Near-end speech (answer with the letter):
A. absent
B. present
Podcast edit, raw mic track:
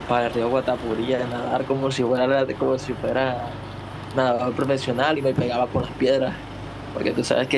B